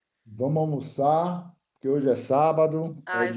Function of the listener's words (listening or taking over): taking over